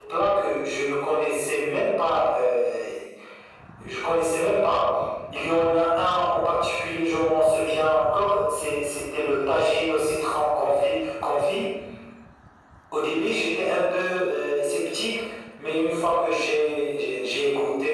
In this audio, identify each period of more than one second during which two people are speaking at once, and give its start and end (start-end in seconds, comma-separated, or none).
none